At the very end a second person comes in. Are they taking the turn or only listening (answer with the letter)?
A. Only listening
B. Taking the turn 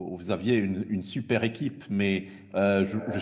A